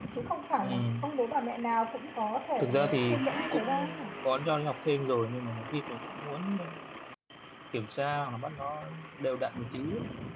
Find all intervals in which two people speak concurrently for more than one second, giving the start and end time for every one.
2.6-4.1

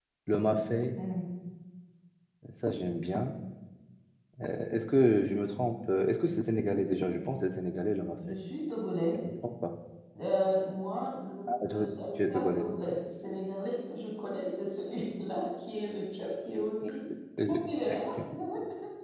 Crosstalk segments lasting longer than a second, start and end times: 11.7-13.0

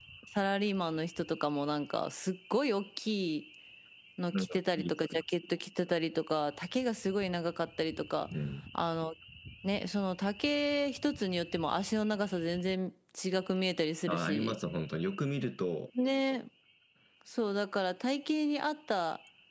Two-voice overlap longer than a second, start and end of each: none

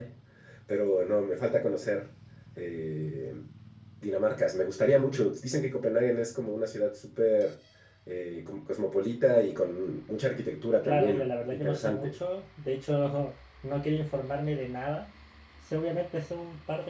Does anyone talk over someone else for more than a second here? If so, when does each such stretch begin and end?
10.8-12.2

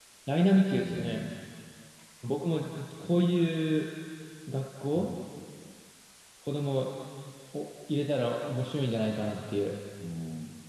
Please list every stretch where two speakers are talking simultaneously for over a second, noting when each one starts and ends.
none

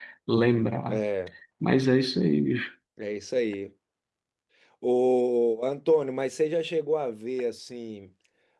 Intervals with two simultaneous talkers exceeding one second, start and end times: none

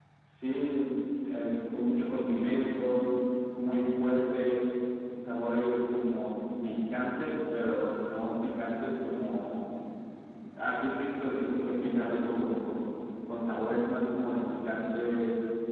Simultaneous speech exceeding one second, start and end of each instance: none

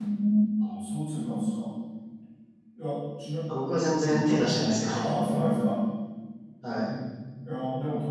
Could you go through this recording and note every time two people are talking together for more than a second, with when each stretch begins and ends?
none

